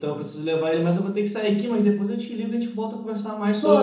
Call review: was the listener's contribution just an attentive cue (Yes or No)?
No